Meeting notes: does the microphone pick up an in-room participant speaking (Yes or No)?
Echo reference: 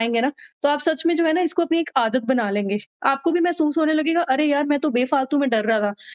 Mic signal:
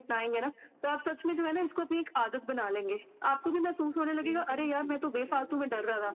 Yes